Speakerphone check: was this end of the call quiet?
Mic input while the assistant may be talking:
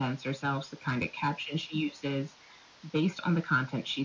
Yes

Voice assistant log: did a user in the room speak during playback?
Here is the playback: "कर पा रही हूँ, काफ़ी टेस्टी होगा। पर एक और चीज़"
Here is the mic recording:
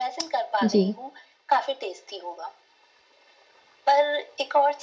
Yes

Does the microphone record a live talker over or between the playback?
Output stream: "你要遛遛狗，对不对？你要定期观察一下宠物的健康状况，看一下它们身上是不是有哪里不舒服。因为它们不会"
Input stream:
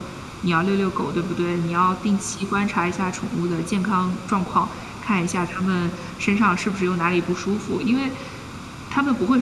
No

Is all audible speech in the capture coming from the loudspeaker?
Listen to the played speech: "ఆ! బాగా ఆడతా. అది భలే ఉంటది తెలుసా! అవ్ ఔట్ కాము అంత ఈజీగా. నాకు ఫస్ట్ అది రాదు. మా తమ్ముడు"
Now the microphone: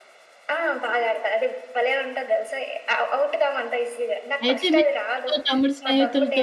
No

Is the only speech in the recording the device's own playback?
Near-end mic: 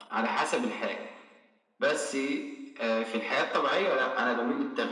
Yes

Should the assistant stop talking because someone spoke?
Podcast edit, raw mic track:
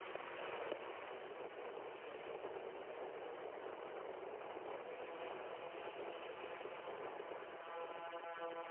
No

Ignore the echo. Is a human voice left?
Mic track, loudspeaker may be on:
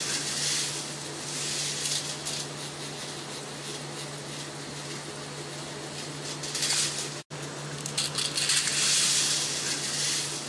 No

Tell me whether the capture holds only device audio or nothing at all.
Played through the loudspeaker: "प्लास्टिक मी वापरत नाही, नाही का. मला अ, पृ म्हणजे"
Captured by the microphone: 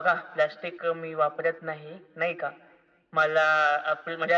Yes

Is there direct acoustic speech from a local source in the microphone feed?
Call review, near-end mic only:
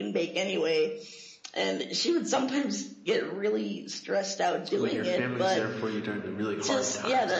Yes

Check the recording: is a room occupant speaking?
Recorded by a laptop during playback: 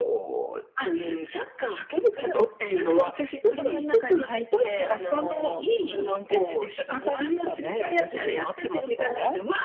No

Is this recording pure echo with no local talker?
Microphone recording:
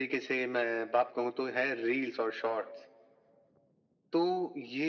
Yes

